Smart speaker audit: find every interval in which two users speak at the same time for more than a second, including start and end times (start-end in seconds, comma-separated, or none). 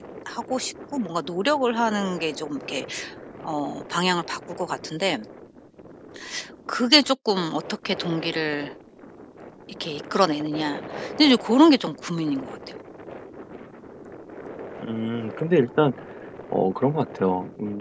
none